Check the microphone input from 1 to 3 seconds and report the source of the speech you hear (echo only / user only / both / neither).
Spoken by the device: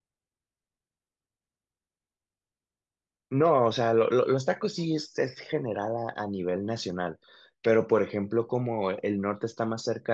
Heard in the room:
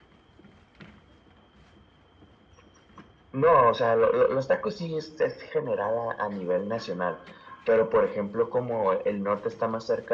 neither